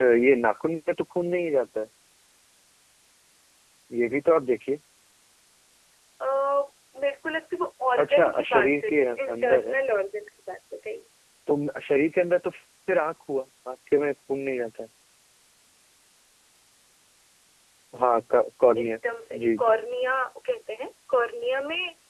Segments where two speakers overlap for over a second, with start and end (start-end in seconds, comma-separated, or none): 8.0-9.8